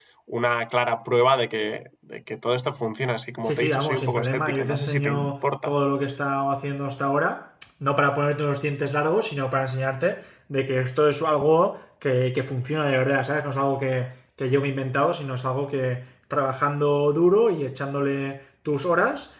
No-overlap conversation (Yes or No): No